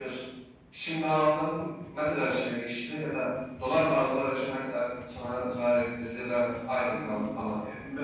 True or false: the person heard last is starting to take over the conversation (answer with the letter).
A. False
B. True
B